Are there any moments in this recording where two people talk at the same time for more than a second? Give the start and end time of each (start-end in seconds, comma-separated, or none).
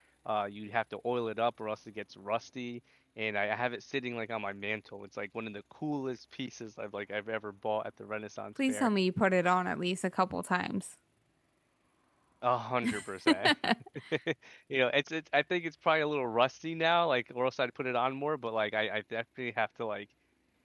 none